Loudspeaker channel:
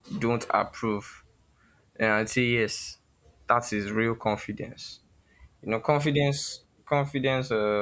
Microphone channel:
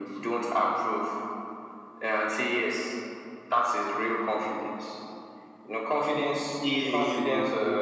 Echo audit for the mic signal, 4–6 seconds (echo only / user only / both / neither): echo only